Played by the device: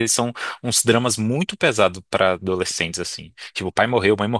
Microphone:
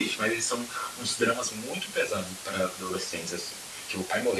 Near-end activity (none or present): none